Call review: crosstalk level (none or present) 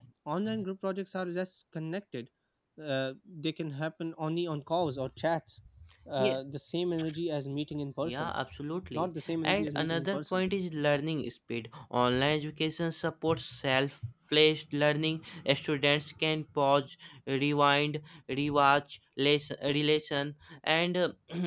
present